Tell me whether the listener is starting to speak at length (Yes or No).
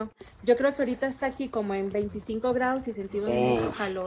Yes